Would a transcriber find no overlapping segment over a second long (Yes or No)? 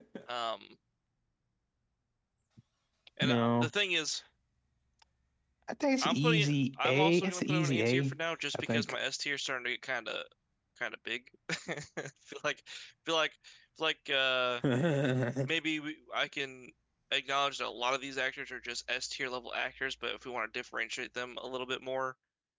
No